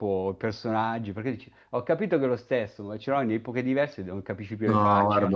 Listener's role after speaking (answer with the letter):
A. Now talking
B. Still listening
A